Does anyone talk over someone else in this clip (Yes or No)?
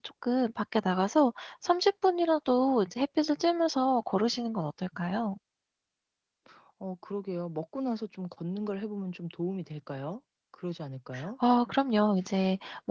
No